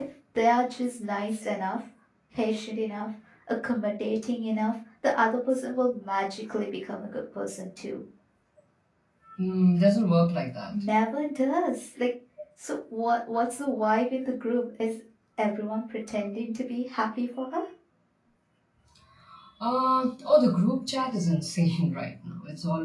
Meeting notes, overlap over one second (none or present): none